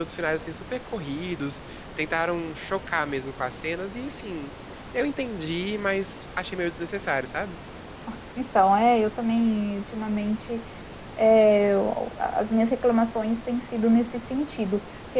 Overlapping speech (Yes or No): No